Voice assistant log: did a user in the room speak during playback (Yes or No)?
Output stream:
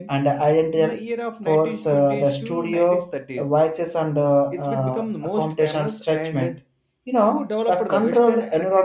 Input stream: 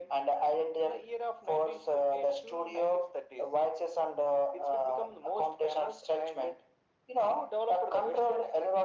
No